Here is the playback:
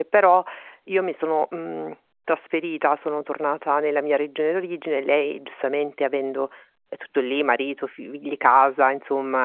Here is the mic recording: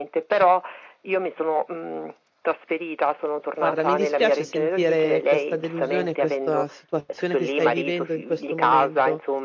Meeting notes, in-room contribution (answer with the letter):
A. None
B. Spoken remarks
B